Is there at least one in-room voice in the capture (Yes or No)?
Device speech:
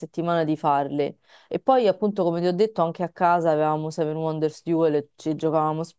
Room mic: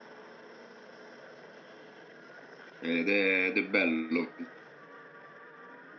Yes